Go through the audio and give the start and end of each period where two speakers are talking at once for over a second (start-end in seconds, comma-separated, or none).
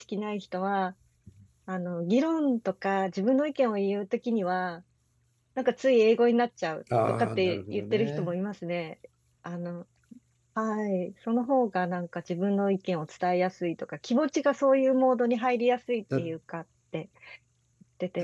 7.1-8.3